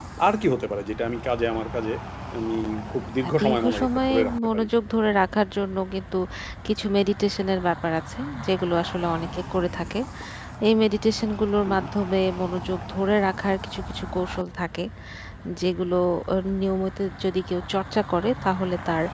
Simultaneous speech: Yes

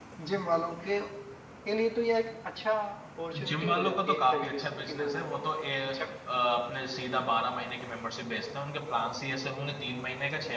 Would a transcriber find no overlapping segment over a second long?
No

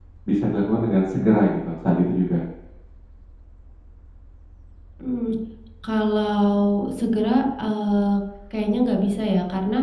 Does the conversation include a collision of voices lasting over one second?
No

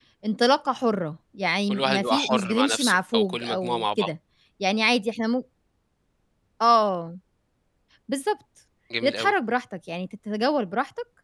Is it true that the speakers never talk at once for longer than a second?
No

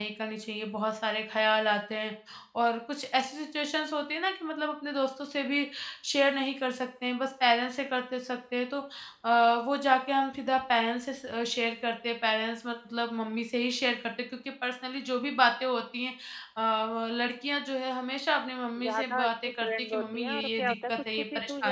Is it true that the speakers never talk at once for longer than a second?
No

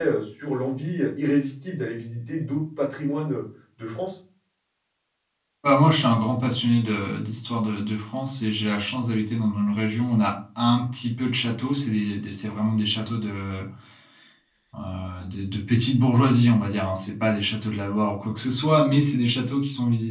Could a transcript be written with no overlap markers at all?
Yes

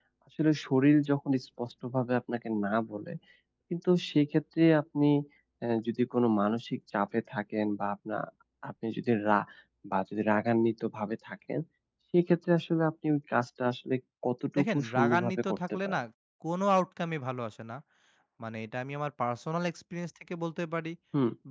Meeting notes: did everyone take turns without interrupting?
No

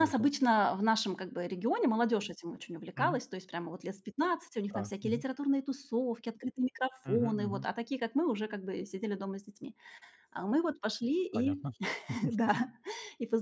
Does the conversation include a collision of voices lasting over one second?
No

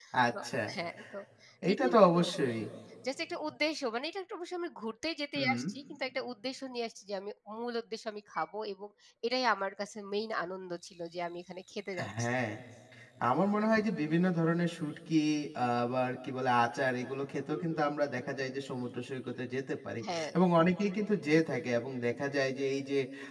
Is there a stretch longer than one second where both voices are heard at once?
No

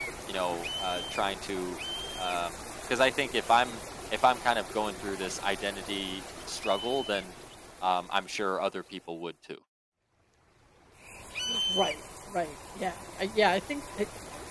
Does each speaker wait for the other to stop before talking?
Yes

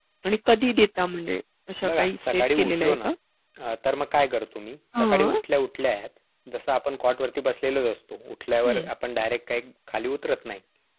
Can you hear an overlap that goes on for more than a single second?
Yes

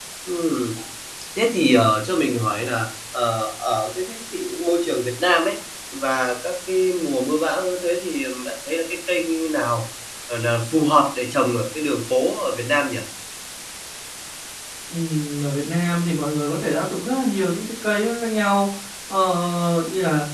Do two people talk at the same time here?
No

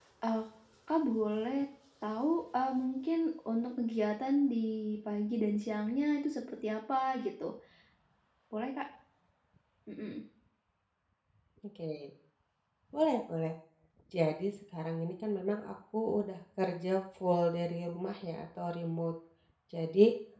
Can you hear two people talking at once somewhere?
No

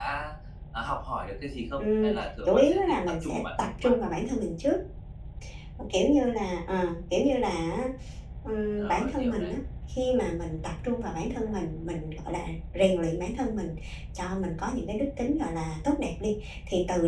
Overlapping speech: Yes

